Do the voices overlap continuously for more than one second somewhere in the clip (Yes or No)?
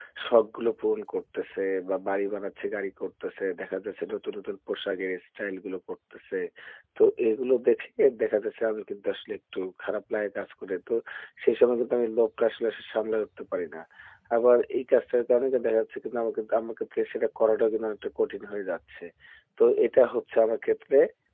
No